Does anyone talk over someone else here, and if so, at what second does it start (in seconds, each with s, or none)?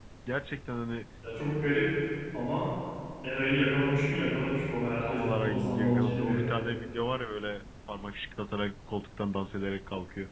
5.1 s